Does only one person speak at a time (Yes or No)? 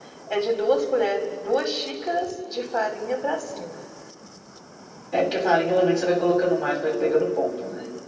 Yes